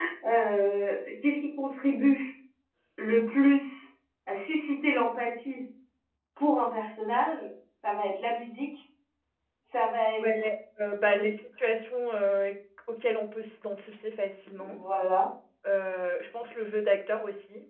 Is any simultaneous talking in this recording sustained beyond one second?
No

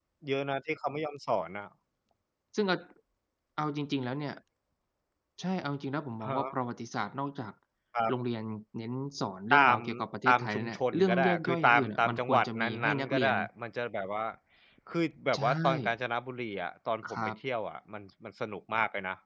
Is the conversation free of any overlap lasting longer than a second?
No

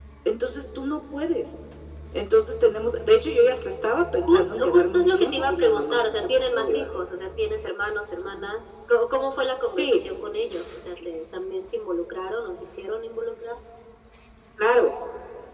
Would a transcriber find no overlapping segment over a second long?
No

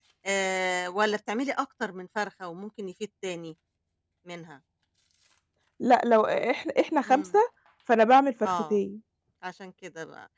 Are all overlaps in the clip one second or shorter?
Yes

